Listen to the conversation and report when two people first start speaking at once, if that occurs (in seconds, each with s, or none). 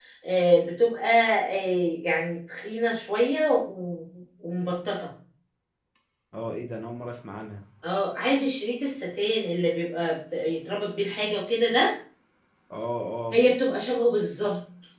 none